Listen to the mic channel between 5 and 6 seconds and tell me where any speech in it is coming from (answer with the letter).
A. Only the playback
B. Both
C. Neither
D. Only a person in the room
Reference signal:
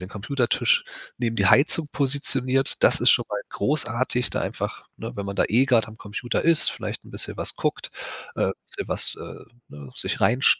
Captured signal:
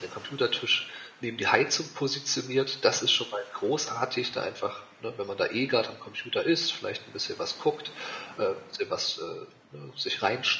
A